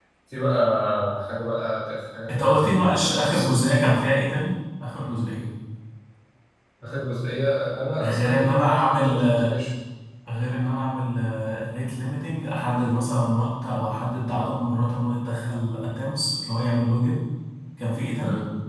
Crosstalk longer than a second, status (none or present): present